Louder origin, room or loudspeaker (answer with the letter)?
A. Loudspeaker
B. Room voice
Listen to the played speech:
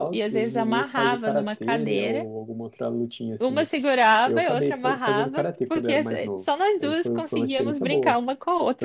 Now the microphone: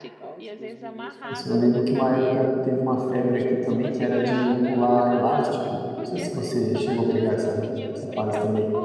B